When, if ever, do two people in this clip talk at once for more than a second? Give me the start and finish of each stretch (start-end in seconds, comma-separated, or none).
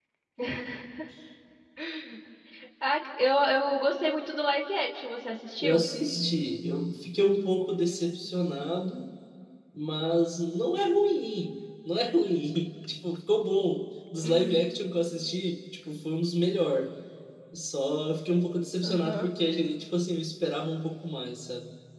none